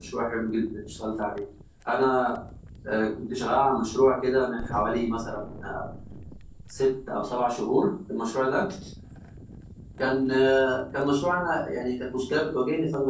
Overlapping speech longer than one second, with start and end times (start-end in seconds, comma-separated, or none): none